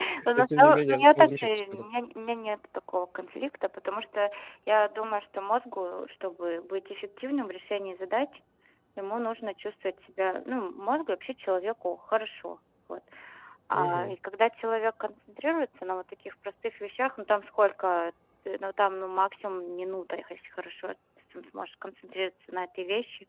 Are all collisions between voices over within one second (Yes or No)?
No